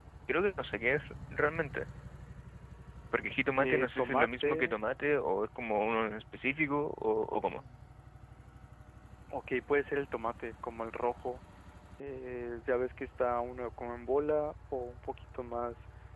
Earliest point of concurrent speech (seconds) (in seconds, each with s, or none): 3.6 s